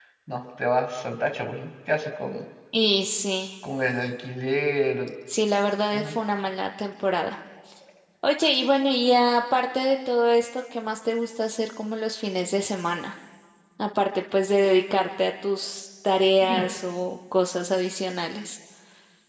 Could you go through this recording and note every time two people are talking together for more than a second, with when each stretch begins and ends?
none

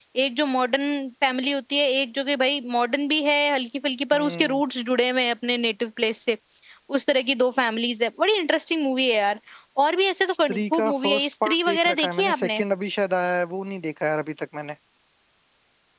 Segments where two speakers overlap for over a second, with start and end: 10.3-12.6

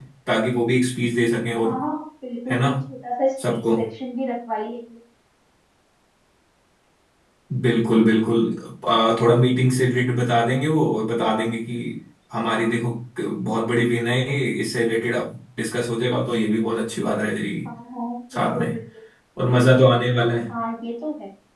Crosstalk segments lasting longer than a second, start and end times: none

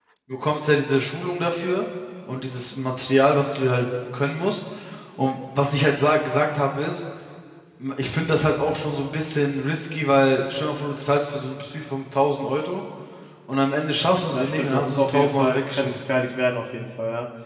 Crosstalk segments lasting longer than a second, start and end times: 14.3-16.1

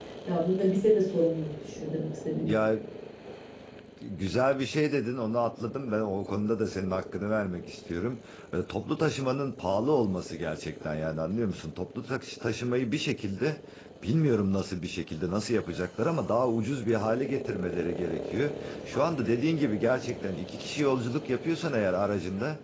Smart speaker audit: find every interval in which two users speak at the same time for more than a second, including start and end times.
none

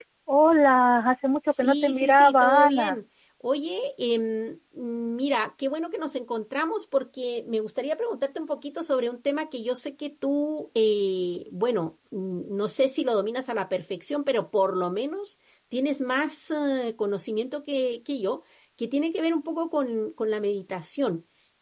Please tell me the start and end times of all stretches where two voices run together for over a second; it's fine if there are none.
1.5-3.0

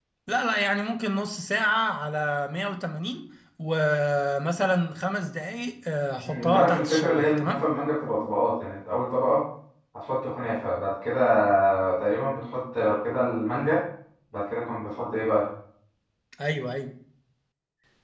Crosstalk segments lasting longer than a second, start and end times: 6.2-7.6

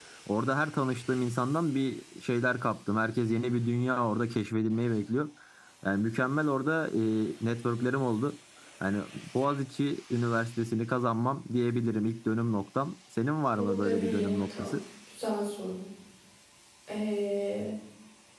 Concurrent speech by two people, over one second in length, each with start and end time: 13.5-14.8

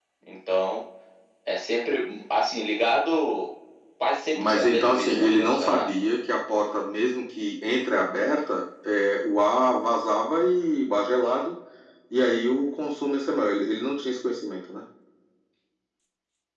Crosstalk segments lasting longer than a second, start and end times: 4.3-5.9

